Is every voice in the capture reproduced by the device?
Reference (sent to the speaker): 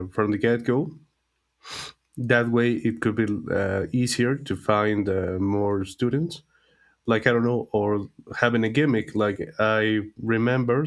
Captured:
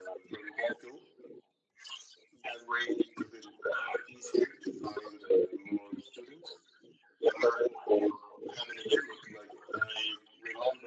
Yes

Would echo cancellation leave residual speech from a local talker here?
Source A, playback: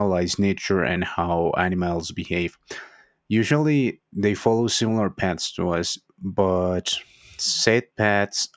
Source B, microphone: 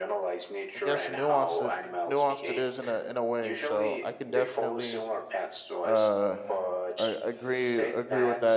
Yes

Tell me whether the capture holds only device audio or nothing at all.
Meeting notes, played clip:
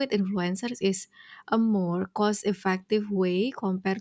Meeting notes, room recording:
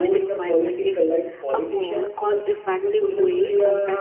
No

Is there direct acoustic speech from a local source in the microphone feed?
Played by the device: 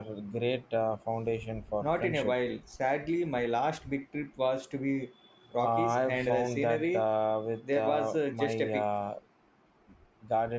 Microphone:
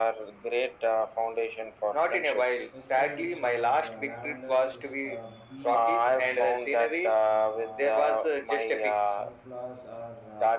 Yes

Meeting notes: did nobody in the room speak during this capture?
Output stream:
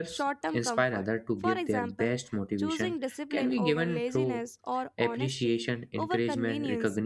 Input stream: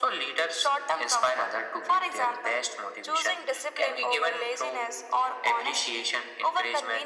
Yes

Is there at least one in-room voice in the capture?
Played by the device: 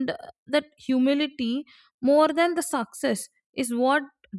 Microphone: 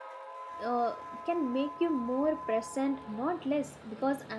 Yes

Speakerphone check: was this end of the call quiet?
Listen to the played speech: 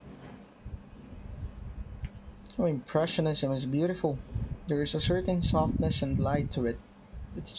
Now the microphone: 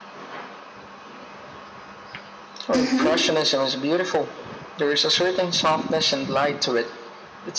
No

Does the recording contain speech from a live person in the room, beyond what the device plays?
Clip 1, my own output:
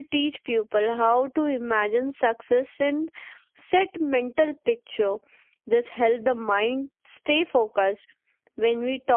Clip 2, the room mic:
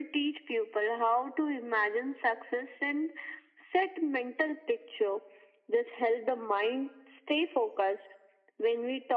No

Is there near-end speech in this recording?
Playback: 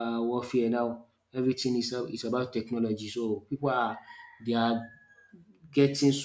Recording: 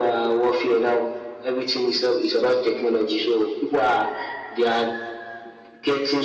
No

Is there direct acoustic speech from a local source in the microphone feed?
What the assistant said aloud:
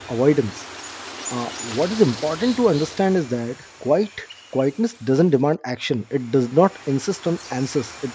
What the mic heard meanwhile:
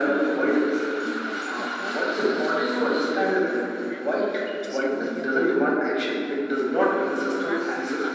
Yes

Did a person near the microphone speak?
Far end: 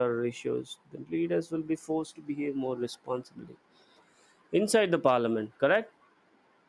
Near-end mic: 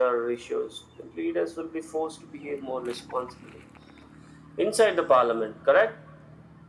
No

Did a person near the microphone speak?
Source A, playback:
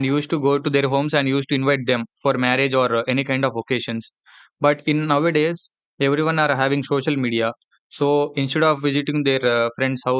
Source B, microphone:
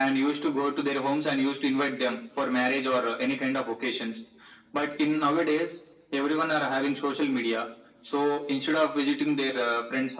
No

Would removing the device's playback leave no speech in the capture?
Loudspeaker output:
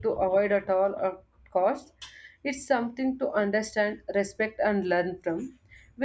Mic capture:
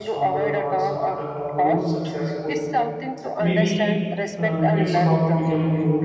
No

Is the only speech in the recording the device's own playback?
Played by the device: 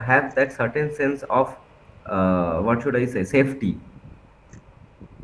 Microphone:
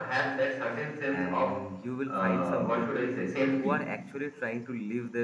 No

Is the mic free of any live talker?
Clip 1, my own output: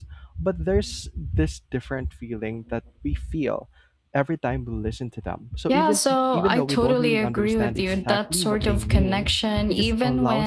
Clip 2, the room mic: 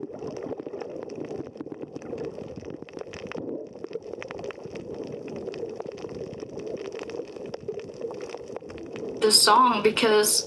No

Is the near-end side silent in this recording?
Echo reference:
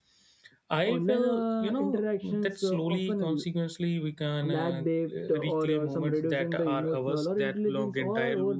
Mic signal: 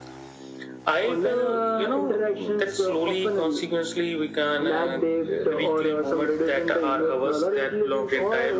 Yes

